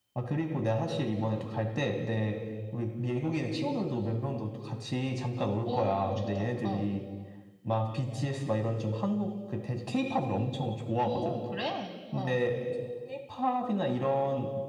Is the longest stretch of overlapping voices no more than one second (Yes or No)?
No